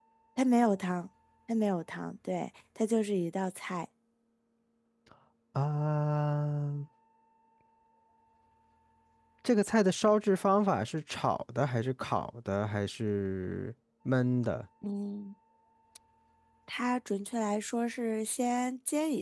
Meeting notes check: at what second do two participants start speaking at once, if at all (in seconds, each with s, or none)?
none